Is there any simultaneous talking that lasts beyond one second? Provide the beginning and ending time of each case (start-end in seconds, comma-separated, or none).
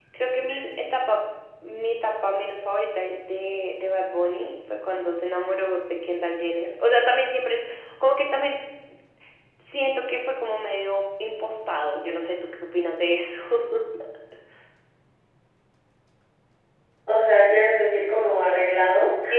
none